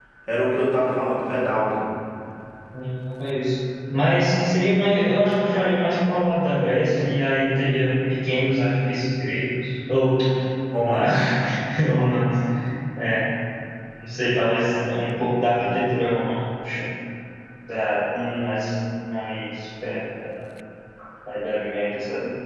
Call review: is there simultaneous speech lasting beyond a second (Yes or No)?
No